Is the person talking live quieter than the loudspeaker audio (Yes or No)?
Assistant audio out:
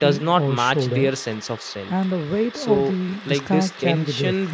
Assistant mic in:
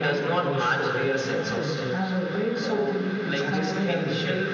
Yes